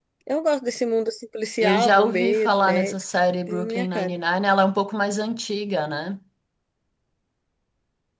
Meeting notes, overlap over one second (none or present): present